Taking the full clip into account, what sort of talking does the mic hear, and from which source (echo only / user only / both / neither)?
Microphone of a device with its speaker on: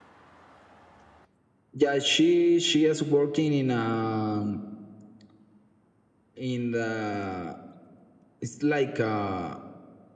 echo only